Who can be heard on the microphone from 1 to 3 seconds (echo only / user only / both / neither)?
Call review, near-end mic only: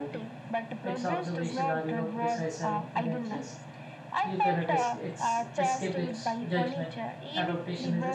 both